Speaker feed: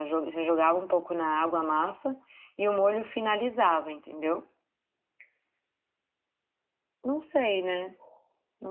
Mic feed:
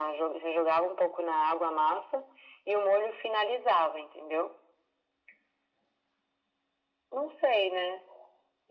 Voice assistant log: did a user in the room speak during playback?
No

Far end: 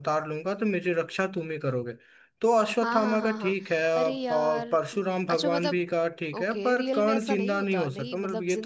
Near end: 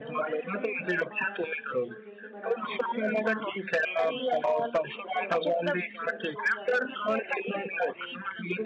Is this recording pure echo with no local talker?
No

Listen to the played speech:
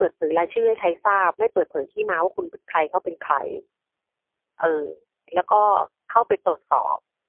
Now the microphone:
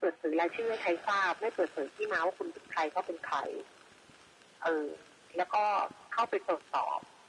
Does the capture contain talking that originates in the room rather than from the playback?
No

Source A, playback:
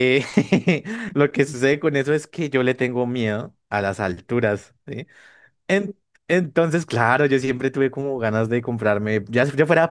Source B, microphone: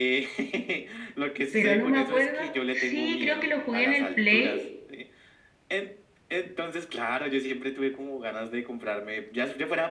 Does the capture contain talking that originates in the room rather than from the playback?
Yes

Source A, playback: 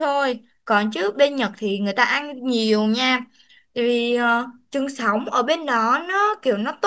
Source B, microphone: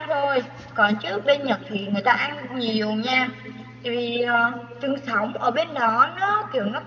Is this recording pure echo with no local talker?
Yes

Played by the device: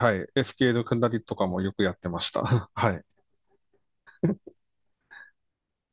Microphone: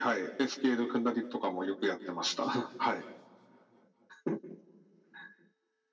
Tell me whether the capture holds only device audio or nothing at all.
Yes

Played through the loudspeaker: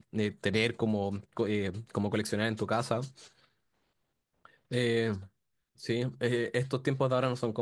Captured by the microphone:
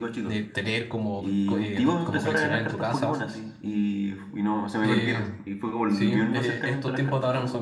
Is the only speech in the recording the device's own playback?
No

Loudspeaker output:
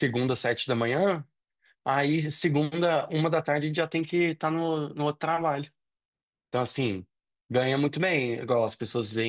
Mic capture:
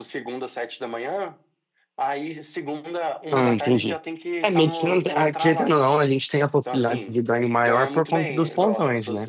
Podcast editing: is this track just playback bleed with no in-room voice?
No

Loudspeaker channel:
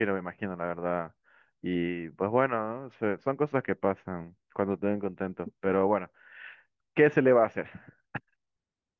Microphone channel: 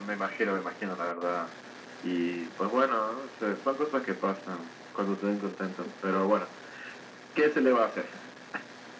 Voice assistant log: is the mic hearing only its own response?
Yes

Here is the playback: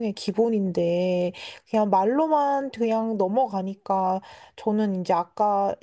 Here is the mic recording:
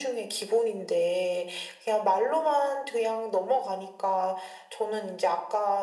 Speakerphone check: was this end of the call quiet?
Yes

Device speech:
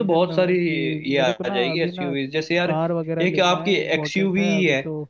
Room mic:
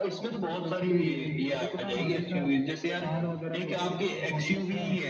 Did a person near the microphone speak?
No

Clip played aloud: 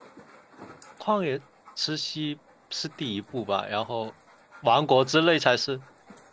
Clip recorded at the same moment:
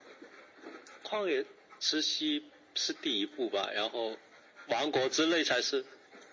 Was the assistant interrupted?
No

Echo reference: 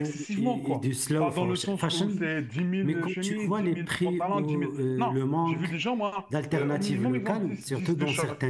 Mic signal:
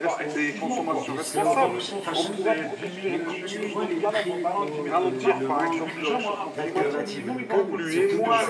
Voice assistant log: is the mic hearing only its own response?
No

